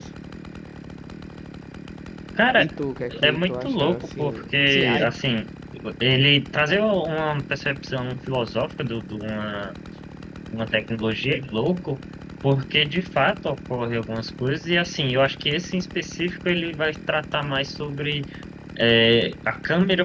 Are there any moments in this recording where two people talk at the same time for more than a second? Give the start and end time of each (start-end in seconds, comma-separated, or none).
3.2-5.1